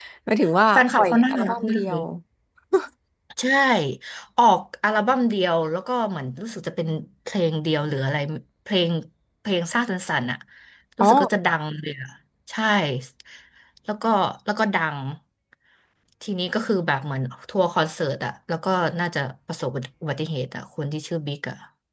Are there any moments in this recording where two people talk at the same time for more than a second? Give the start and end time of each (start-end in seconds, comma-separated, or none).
0.7-2.0